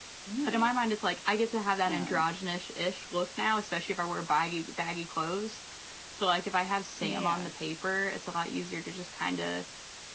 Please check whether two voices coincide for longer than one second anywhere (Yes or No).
No